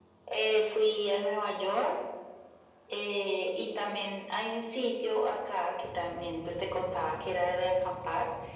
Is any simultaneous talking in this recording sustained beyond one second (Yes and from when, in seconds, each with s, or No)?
No